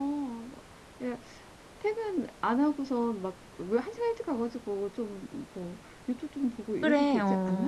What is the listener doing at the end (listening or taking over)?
taking over